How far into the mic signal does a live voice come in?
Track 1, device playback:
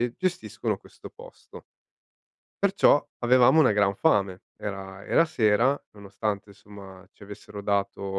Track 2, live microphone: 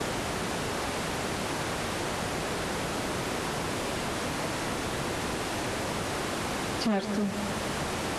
6.8 s

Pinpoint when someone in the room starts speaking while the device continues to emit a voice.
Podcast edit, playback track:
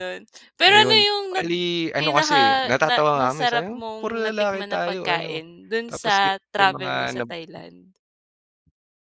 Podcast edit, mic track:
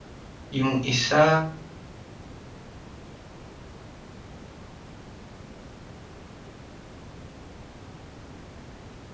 0.5 s

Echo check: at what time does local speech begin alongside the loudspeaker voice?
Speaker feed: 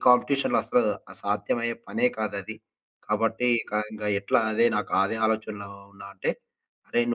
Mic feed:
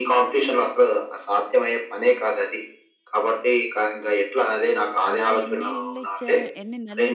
5.1 s

